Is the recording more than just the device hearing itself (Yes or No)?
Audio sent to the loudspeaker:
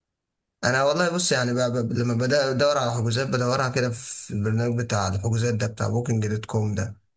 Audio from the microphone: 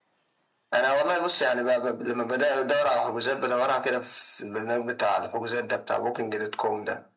No